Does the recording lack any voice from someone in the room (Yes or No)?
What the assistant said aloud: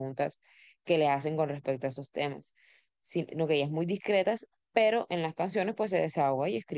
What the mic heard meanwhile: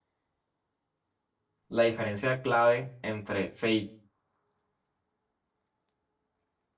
No